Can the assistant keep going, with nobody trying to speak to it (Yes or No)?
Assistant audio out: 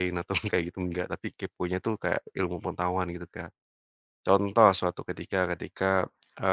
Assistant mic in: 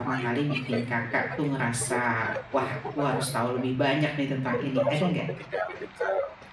No